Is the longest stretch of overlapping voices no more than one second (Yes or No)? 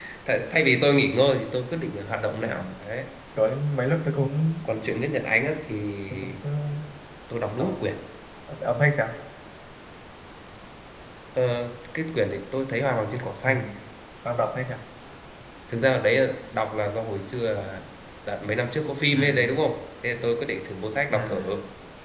Yes